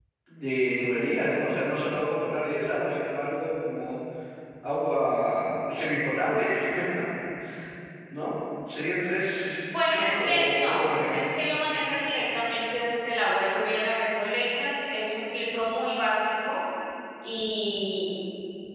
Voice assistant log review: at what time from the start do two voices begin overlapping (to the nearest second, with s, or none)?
10 s